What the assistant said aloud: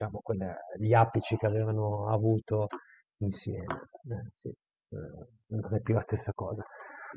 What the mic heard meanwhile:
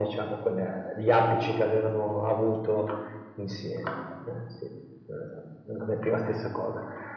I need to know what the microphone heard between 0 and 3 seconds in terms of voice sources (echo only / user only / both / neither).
echo only